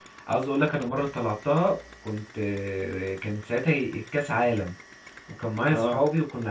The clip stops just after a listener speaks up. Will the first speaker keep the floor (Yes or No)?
Yes